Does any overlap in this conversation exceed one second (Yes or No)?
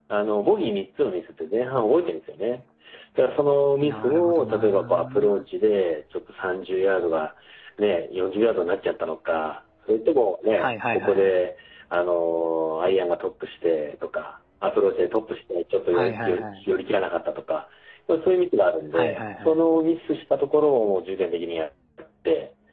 Yes